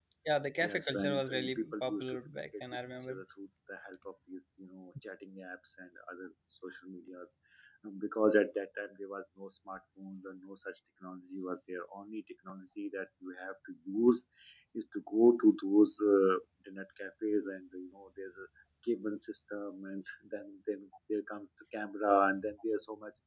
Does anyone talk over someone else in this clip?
Yes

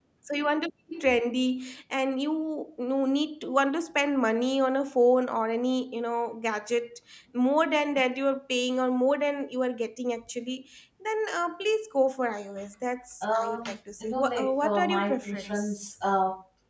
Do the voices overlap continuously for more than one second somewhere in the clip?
Yes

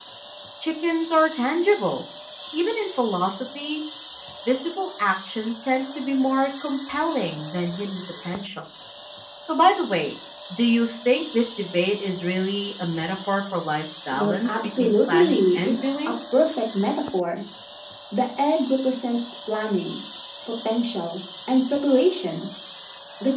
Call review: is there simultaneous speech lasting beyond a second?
Yes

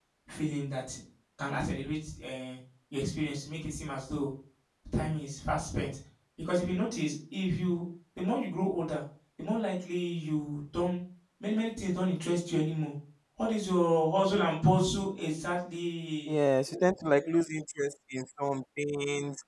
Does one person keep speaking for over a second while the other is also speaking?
No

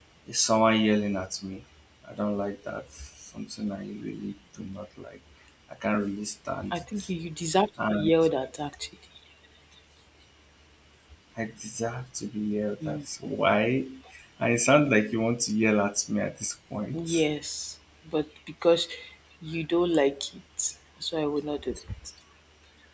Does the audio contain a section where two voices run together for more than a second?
No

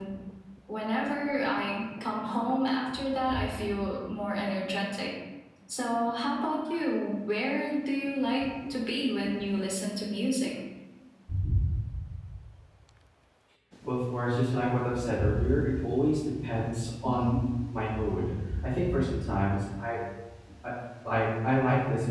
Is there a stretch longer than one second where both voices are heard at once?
No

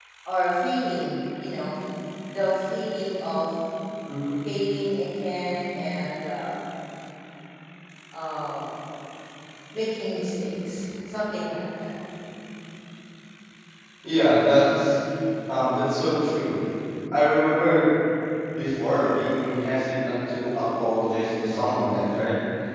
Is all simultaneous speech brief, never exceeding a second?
Yes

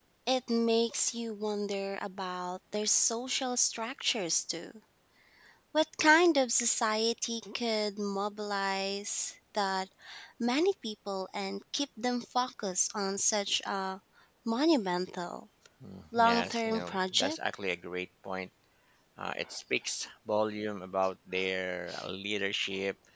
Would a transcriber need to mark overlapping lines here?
Yes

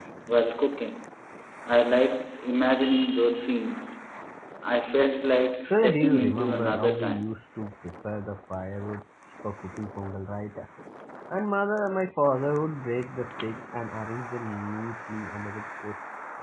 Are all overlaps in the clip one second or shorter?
No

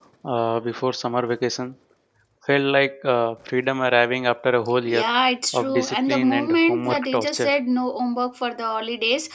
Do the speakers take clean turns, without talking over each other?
No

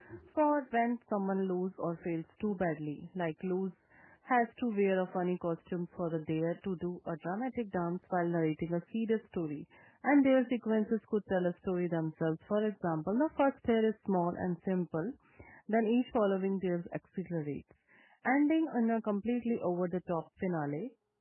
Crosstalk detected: No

